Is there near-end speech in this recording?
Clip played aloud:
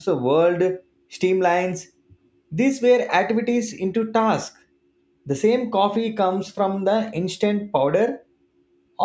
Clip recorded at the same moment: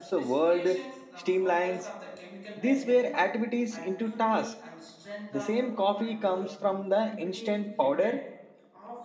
Yes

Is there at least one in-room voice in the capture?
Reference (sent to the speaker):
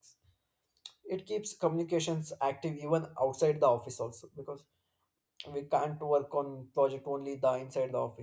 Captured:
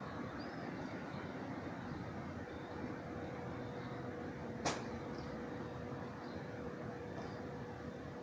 No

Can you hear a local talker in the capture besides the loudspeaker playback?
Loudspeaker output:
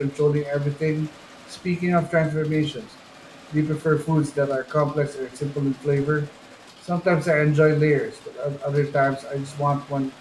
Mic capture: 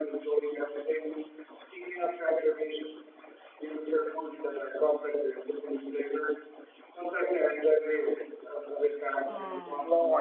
Yes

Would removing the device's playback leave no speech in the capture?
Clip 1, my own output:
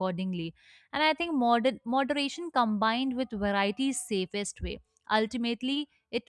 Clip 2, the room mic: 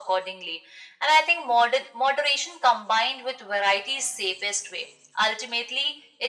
Yes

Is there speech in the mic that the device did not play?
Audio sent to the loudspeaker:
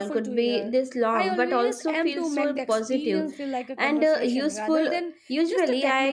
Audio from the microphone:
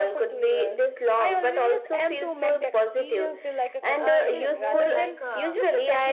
Yes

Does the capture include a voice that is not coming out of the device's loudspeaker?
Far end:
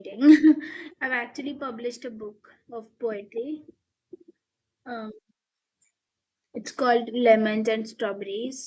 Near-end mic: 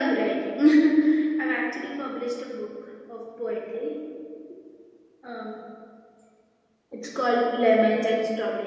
No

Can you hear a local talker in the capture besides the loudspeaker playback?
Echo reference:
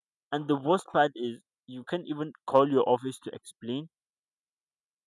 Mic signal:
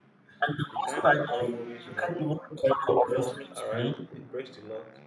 Yes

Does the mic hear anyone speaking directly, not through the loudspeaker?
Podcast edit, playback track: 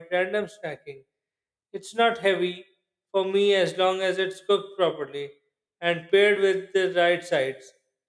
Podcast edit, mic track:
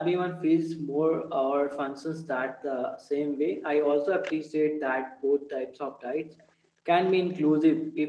Yes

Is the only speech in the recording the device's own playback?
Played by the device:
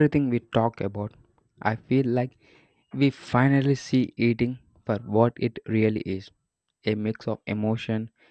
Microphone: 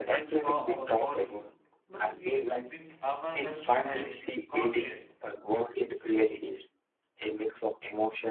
No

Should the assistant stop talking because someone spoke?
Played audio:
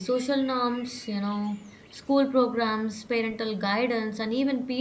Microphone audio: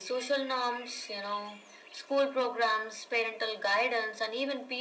No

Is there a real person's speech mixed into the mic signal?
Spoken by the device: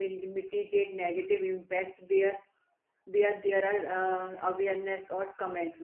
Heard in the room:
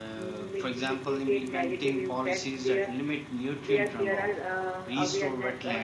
Yes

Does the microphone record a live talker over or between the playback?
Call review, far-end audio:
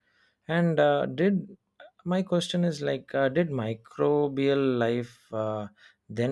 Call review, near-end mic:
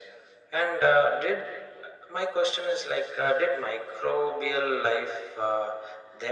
No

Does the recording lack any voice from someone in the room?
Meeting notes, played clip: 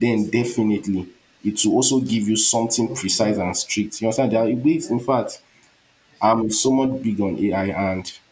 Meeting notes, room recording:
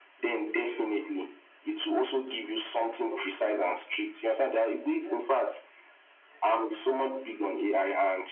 Yes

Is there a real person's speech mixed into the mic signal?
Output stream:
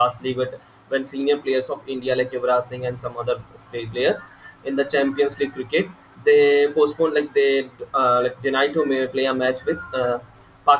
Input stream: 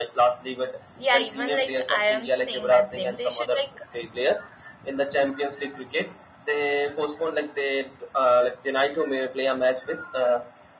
Yes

